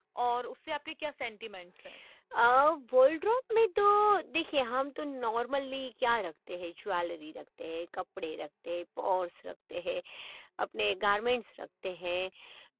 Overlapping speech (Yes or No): No